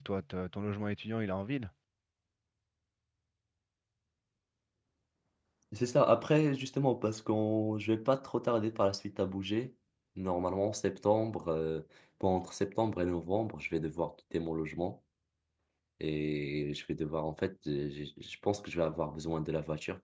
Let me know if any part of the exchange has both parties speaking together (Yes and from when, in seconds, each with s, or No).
No